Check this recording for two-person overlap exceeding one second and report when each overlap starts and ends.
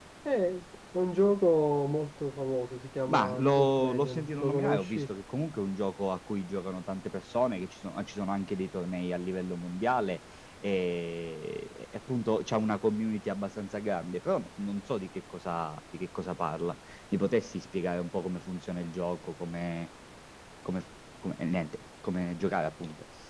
3.1-5.1

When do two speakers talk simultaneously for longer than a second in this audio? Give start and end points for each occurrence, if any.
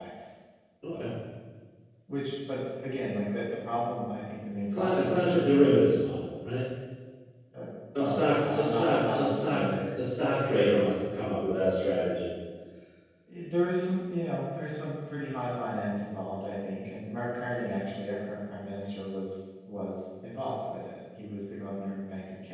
4.8-6.0, 8.0-9.9

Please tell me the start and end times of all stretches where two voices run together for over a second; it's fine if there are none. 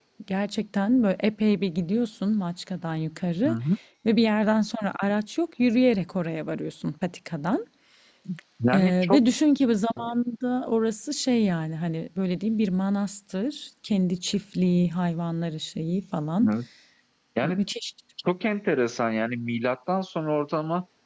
none

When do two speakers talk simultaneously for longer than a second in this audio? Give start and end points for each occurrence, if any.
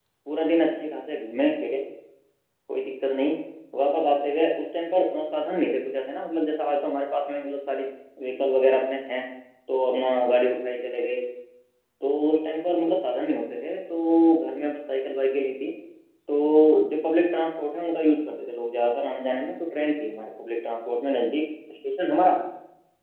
none

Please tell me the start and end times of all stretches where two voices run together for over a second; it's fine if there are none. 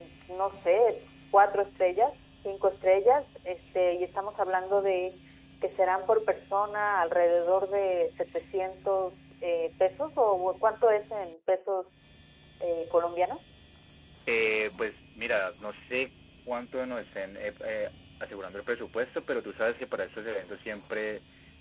none

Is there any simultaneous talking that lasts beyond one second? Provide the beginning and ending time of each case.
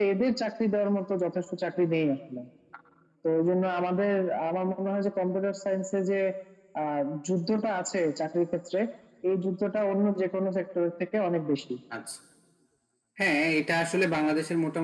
none

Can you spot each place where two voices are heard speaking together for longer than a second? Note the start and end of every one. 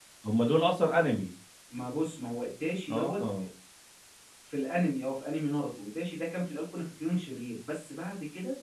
none

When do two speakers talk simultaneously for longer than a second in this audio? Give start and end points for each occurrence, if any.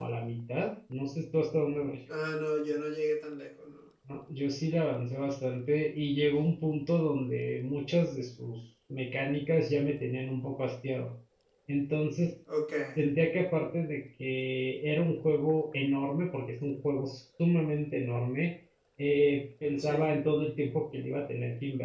none

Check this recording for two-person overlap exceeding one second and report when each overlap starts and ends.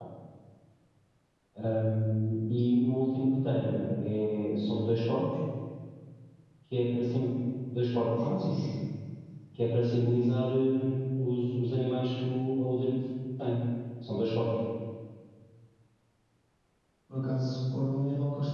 none

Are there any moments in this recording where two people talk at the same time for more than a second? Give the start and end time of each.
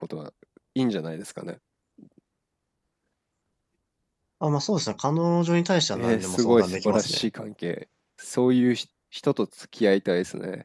5.9-7.3

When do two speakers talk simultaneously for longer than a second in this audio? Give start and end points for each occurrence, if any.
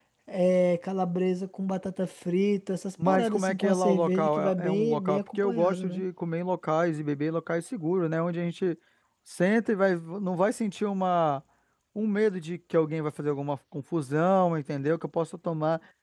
3.0-6.0

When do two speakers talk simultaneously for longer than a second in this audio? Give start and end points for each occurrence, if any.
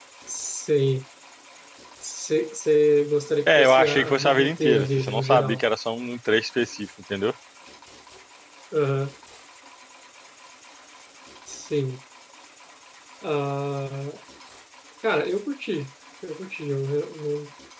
3.5-5.6

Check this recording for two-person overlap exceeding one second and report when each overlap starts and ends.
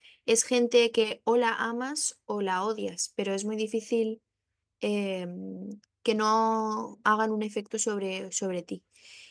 none

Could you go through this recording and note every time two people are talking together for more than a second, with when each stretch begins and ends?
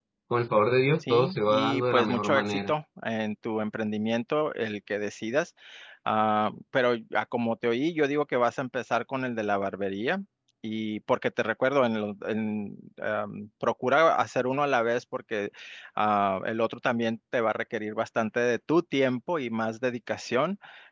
1.0-2.7

